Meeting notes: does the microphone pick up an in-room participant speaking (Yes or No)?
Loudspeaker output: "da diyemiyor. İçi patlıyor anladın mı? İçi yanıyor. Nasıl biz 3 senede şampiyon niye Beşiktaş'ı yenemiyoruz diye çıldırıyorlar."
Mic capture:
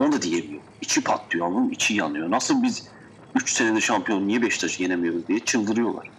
No